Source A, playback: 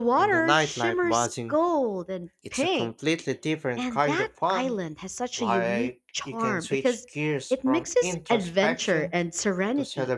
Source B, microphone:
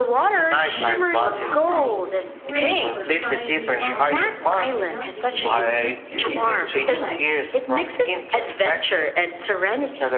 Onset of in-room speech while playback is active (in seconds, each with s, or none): 0.7 s